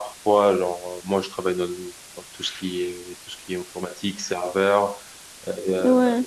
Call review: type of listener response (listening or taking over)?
listening